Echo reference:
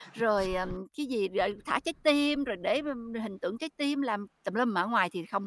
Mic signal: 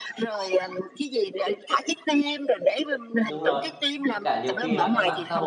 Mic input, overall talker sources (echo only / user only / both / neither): both